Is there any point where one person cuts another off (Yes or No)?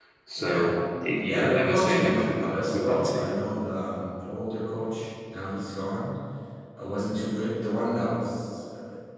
Yes